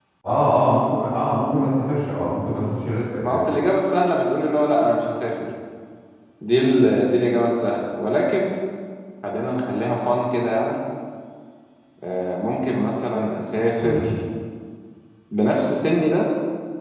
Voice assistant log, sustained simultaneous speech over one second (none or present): none